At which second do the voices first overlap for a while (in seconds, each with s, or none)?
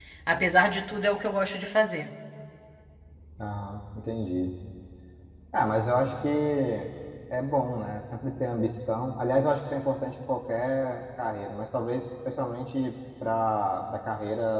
none